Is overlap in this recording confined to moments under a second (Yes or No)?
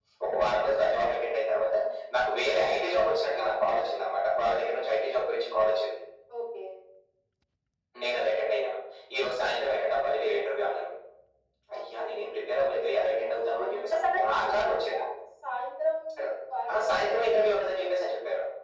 No